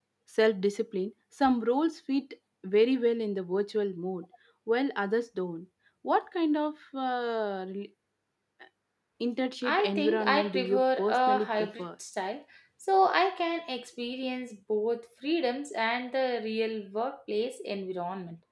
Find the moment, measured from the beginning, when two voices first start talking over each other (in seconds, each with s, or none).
9.8 s